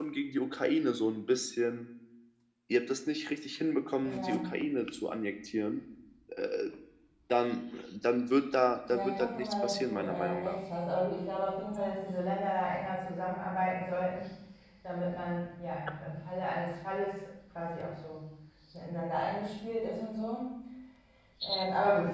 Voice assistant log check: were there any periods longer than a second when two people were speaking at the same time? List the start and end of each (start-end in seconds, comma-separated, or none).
8.9-10.6